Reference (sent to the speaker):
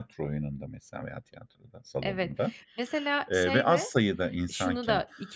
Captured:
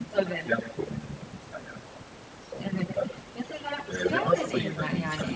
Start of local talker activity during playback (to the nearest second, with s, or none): 4 s